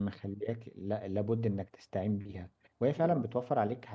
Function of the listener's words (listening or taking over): listening